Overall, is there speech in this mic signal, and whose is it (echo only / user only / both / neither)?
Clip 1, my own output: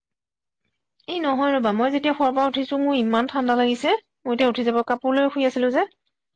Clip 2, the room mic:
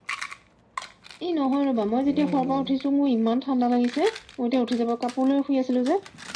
both